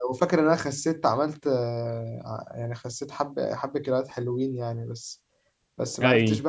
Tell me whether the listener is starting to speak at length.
No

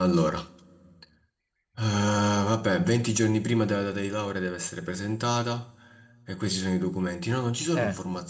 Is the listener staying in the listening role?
Yes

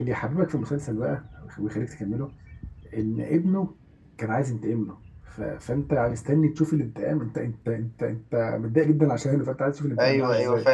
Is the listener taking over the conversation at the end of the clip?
Yes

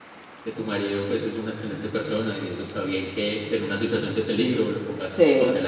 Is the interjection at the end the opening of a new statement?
Yes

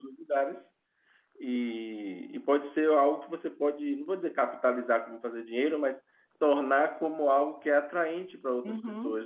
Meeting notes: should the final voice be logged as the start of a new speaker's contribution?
Yes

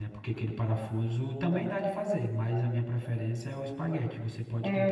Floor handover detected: Yes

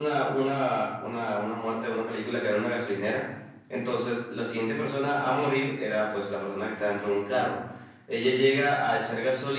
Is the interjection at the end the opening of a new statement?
No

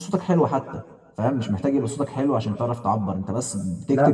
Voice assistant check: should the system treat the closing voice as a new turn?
No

